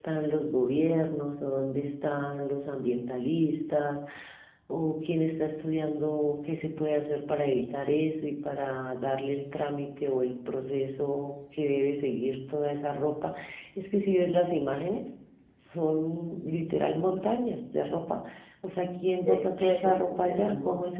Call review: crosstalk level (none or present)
present